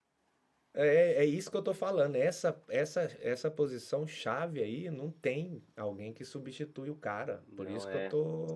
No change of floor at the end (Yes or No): Yes